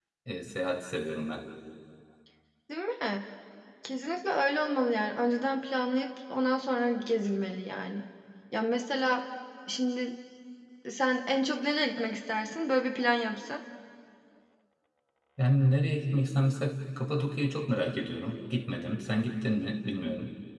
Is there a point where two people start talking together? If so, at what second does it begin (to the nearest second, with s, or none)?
none